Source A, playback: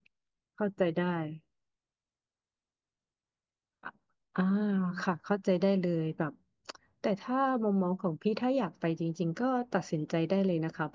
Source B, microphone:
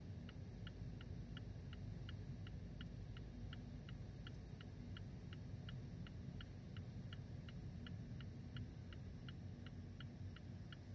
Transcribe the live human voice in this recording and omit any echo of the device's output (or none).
none